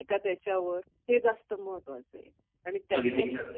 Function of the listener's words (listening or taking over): listening